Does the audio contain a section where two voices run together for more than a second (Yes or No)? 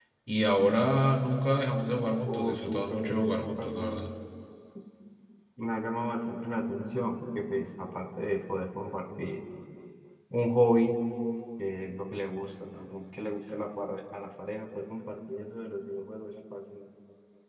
Yes